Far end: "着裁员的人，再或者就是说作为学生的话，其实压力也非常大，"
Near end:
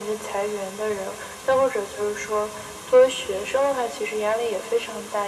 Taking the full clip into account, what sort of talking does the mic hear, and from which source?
echo only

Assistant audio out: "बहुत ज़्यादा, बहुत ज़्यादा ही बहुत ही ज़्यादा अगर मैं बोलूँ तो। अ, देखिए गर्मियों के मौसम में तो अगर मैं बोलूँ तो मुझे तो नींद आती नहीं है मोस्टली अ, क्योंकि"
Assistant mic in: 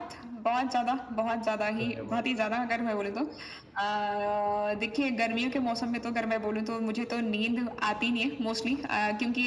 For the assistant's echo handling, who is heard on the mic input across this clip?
both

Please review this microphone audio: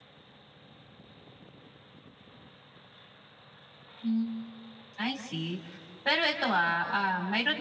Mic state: user only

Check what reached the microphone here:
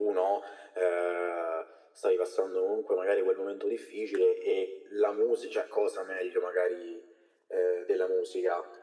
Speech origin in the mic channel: echo only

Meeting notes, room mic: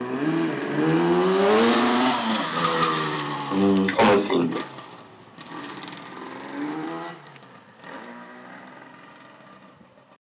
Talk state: user only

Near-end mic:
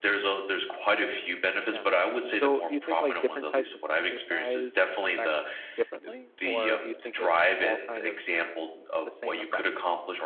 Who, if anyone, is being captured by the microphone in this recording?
both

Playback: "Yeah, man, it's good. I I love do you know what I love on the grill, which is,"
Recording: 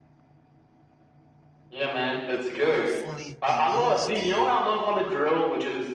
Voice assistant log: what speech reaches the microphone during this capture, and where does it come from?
both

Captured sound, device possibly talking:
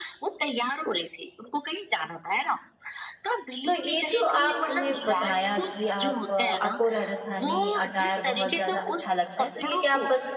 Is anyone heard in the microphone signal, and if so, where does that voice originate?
both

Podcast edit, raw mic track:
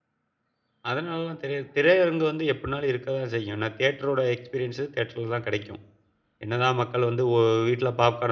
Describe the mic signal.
user only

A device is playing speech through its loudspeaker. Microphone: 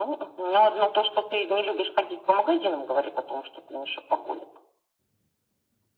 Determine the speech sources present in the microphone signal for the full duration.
echo only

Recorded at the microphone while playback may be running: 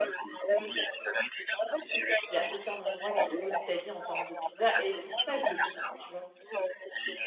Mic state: both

